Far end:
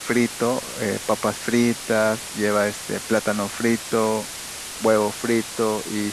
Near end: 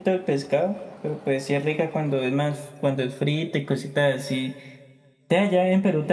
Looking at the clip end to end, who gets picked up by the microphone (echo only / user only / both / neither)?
user only